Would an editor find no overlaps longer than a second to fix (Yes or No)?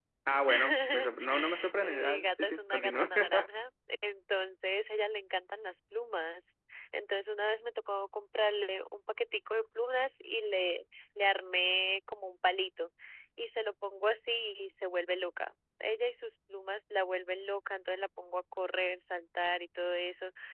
No